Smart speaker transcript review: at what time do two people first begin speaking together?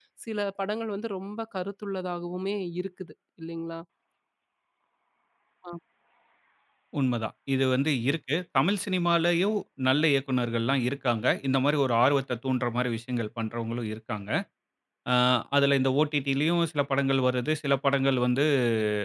none

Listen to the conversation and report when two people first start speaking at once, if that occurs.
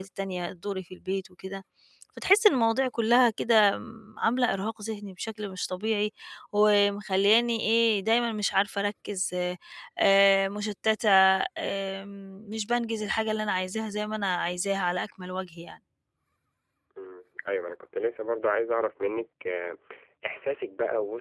none

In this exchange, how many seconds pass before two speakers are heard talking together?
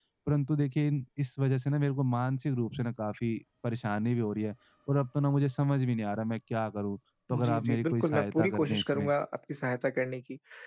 7.3 s

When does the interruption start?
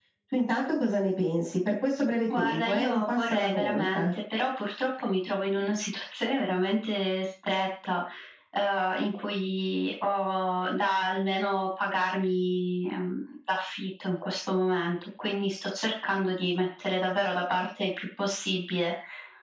2.3 s

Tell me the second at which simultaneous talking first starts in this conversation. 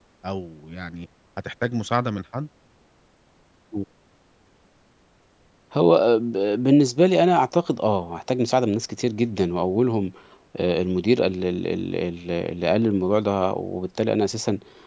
none

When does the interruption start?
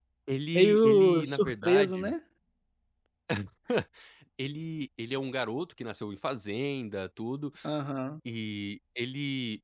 0.5 s

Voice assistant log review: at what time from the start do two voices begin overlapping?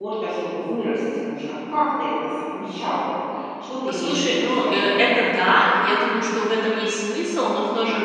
3.9 s

